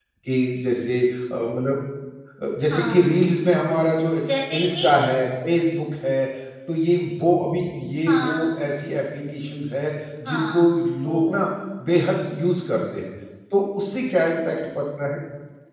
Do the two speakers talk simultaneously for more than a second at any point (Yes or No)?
No